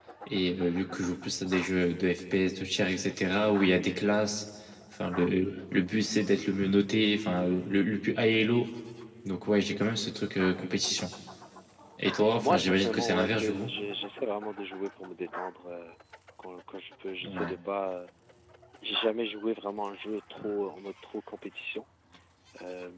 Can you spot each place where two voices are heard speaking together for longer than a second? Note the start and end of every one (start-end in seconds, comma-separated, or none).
12.4-13.7